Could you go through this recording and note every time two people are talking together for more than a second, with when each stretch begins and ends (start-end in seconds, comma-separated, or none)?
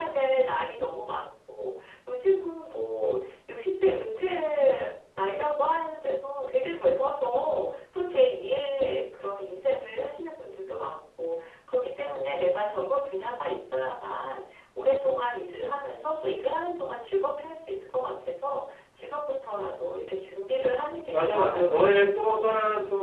21.1-22.5